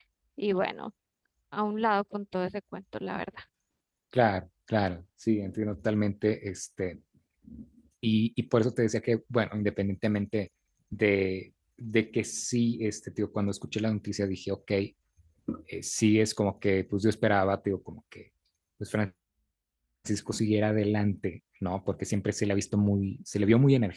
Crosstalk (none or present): none